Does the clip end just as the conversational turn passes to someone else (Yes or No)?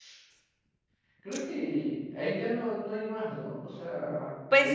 Yes